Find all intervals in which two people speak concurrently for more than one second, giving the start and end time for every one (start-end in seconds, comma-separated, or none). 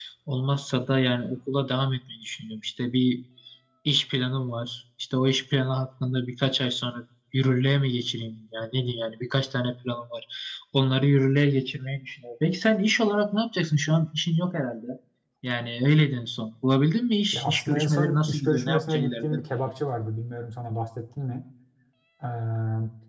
17.3-19.3